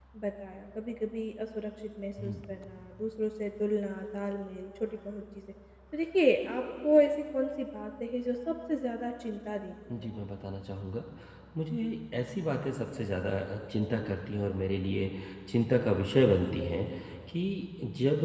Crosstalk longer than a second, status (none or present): none